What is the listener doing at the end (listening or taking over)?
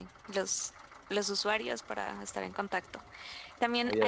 listening